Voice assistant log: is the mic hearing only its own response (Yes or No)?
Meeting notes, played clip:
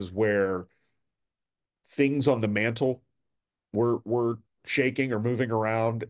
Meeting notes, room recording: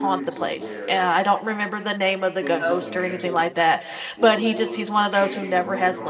No